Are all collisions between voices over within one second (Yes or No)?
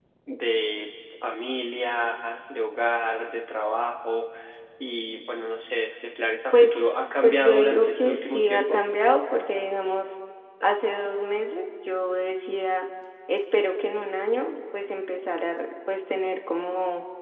No